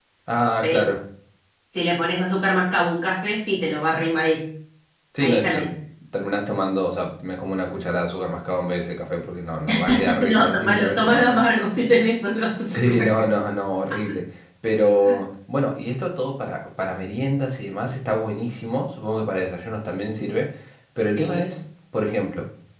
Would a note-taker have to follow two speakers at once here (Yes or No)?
Yes